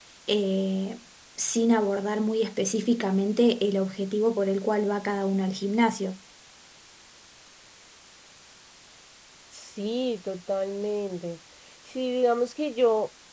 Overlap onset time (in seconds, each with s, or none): none